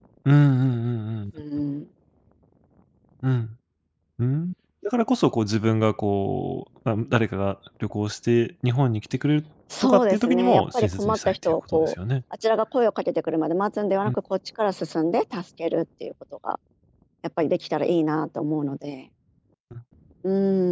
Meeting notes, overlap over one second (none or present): present